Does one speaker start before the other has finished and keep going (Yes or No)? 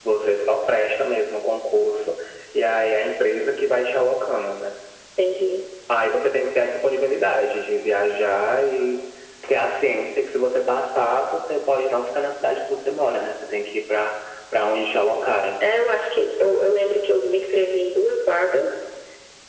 No